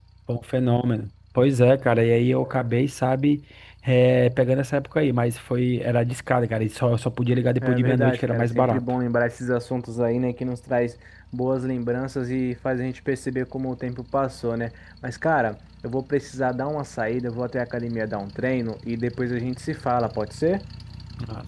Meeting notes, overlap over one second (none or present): present